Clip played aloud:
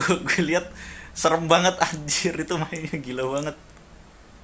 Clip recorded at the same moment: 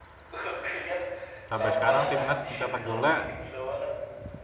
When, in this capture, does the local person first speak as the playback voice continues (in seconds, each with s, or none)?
1.5 s